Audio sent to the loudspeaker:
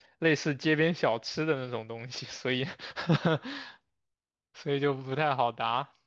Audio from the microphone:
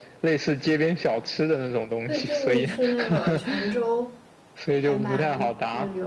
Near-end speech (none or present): present